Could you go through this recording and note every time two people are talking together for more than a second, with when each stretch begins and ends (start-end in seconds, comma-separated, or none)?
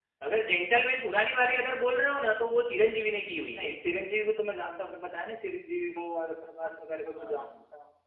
none